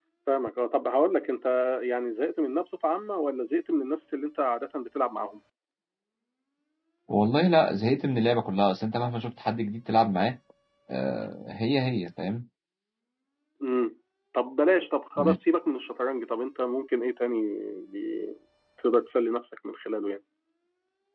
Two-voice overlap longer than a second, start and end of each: none

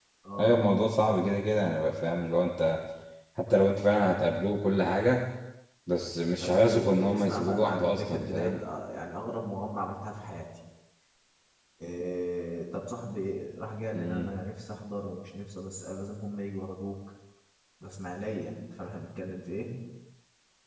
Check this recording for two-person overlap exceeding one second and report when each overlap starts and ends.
6.4-8.6

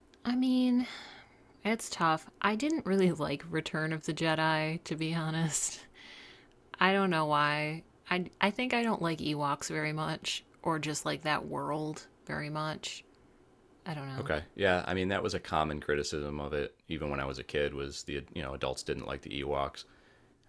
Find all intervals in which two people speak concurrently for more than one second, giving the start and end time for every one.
none

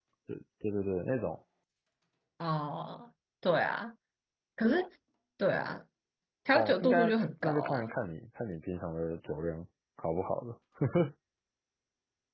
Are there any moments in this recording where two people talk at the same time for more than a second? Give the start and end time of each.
6.5-7.9

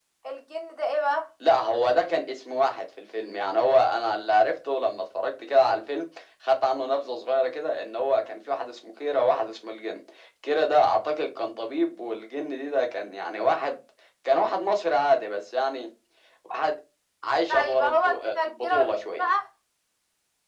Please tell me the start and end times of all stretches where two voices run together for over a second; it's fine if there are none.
17.5-19.3

